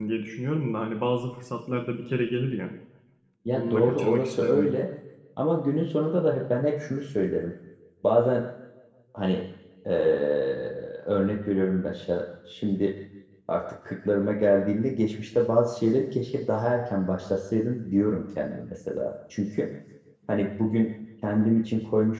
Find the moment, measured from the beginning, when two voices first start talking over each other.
4 s

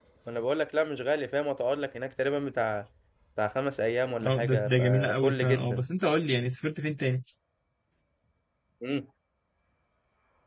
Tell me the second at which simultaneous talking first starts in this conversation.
4 s

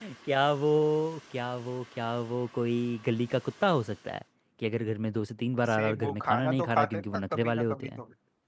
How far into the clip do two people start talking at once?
6 s

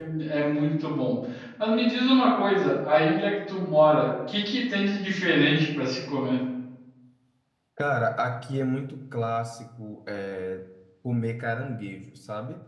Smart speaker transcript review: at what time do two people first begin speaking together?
none

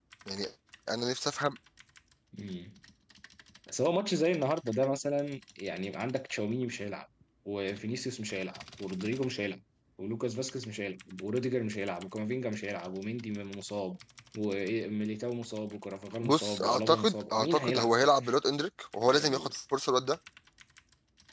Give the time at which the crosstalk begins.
16 s

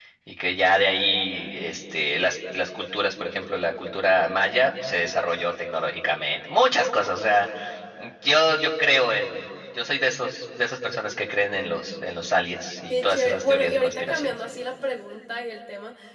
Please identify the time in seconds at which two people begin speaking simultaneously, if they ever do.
13 s

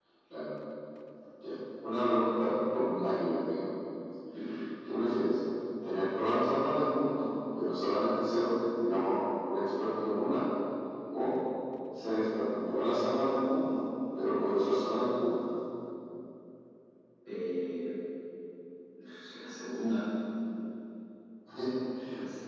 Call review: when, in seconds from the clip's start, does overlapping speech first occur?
none

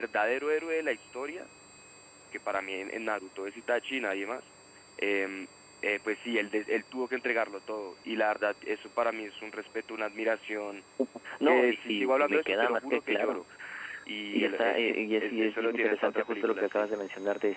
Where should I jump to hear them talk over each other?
11 s

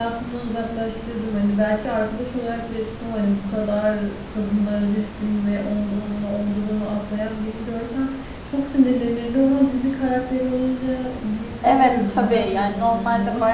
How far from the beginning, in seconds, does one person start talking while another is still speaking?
12 s

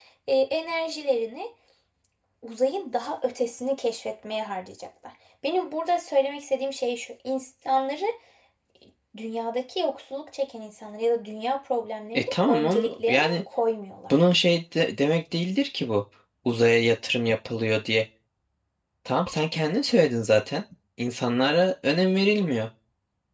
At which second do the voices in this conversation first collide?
12 s

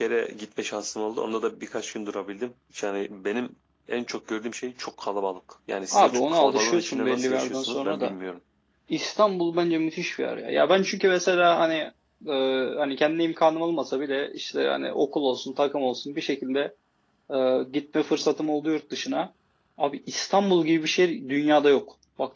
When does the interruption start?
6 s

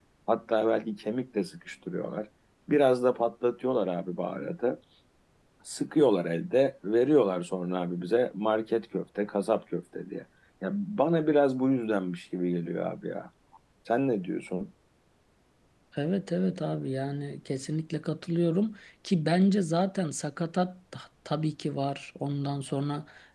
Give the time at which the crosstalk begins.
none

